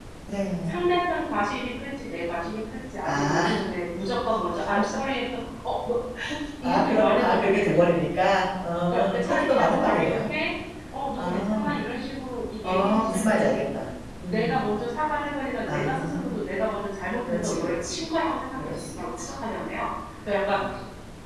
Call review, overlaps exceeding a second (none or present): present